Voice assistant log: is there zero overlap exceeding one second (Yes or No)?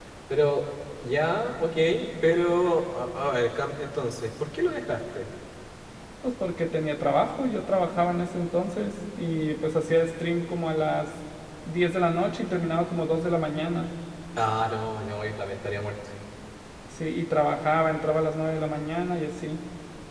Yes